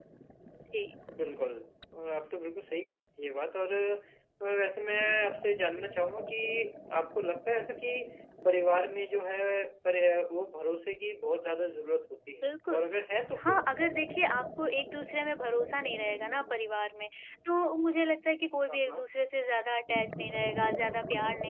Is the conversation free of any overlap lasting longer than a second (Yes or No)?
Yes